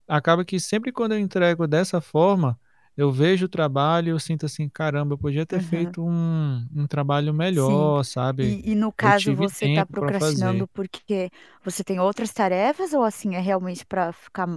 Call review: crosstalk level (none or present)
present